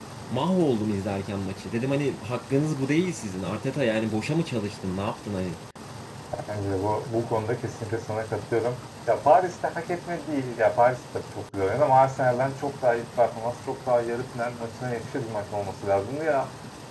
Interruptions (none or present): none